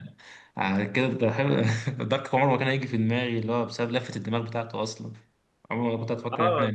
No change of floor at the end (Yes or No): No